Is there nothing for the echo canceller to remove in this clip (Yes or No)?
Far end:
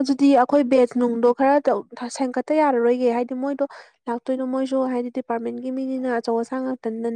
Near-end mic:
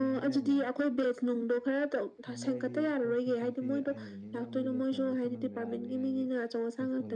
No